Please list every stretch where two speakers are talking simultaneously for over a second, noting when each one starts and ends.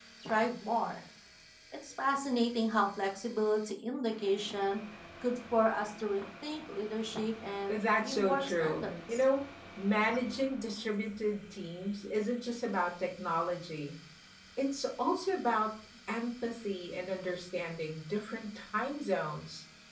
7.7-9.2

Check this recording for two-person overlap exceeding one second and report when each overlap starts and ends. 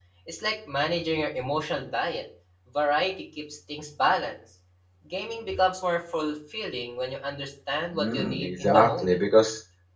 7.9-9.2

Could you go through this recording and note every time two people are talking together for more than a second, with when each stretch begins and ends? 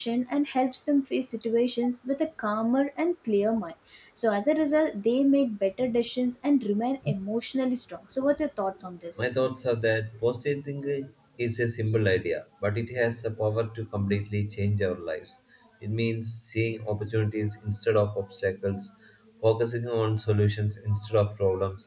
none

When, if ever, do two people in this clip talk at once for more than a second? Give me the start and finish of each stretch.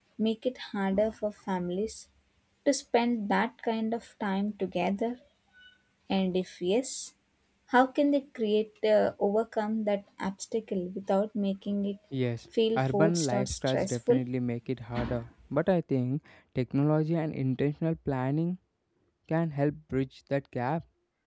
12.8-14.2

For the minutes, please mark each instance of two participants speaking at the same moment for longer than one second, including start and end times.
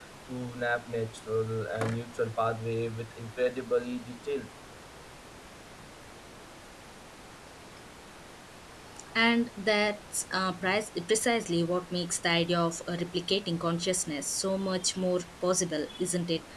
none

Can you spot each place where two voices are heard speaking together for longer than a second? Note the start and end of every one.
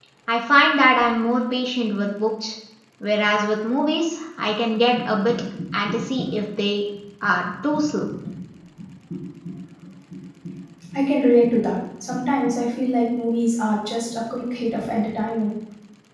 none

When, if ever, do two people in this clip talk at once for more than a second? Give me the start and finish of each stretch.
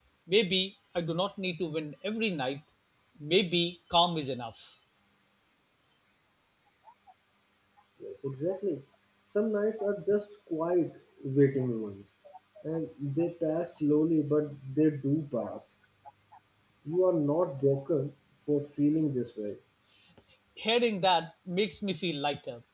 none

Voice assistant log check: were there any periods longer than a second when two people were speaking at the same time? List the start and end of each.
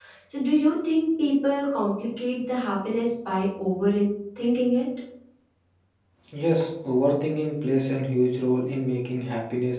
none

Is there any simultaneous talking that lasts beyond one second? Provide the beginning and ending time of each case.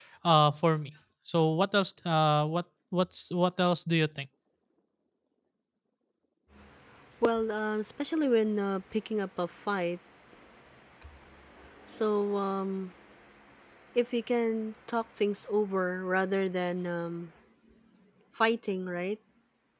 none

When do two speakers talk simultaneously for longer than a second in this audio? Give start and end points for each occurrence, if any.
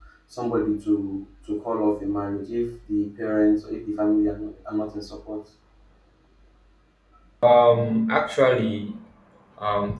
none

